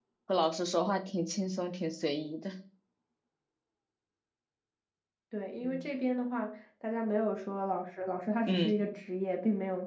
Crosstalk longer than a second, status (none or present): none